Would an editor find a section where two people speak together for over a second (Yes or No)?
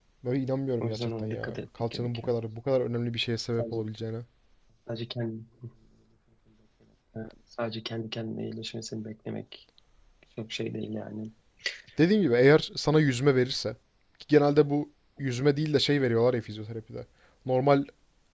Yes